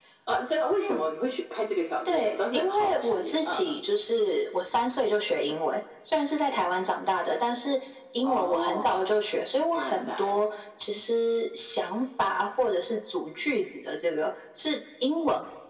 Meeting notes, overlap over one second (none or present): present